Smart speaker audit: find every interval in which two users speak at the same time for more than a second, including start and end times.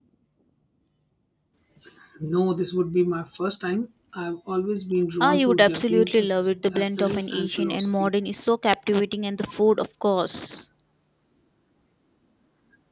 5.2-8.1

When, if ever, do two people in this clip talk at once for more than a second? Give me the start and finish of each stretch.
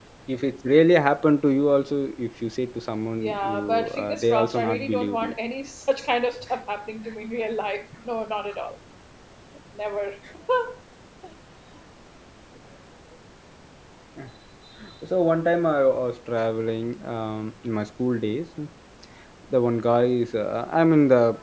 3.2-5.3

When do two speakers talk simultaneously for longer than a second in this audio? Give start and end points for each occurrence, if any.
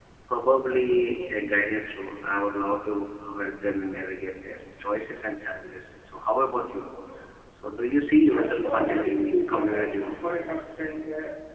8.3-10.2

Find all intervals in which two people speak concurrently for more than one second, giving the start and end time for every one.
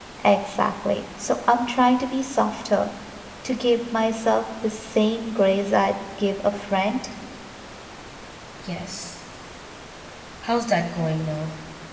none

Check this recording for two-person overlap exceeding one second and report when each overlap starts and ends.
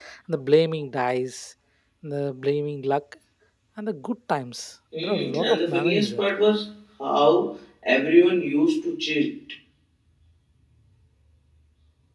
5.0-6.2

